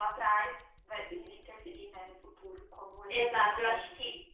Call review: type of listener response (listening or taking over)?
taking over